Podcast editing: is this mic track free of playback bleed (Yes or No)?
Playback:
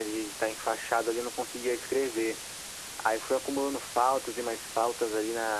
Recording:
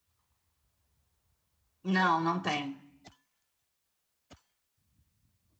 Yes